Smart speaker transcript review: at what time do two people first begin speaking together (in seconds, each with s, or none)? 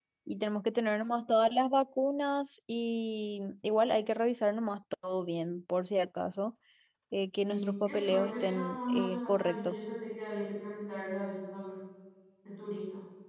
7.5 s